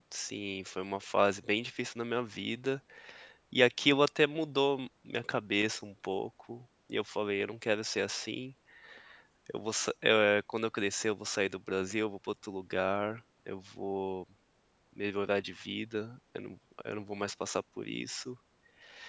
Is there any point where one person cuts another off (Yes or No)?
No